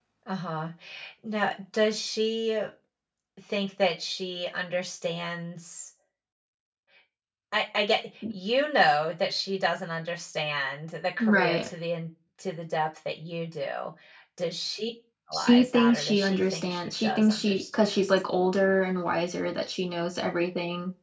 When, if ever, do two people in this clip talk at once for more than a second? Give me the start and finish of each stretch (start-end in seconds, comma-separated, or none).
15.3-18.2